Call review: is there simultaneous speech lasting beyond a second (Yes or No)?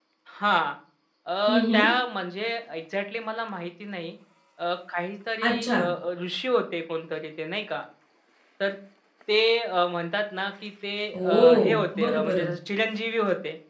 Yes